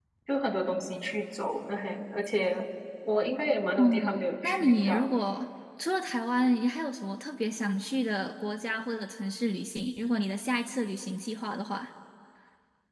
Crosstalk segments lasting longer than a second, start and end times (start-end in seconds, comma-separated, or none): 3.8-5.1